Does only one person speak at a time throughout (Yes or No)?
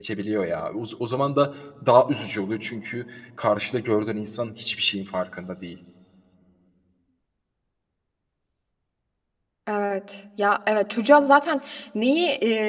Yes